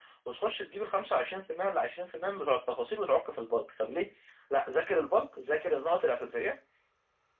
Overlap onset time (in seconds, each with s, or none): none